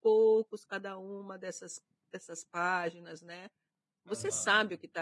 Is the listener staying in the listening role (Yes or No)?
Yes